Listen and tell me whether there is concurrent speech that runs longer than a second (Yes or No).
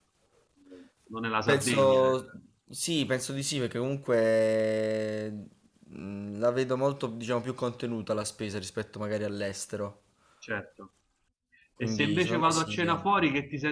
Yes